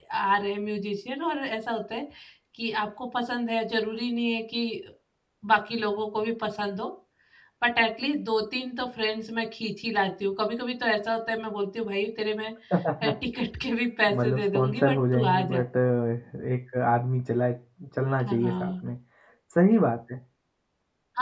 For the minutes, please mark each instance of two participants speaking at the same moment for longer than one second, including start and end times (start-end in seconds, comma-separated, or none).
14.1-15.6